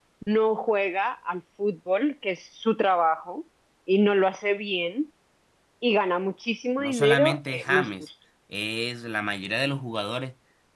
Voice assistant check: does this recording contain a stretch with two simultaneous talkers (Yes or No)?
Yes